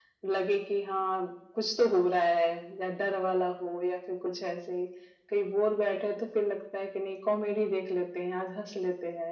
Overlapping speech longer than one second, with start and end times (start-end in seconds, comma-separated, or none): none